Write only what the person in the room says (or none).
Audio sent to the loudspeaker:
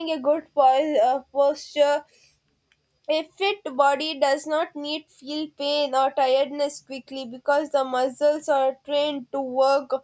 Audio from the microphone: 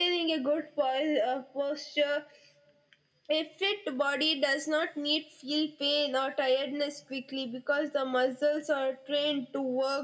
none